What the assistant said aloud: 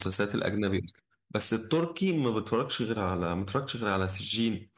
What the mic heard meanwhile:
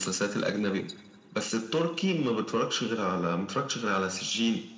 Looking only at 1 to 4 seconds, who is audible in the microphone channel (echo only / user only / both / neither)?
echo only